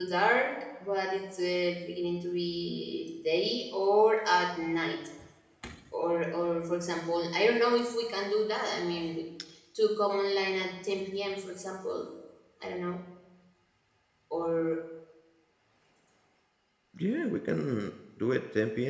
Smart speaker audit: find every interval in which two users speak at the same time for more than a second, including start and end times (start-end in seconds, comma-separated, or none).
none